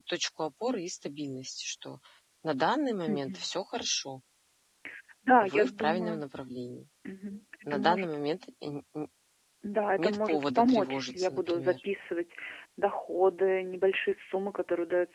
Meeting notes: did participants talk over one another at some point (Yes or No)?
Yes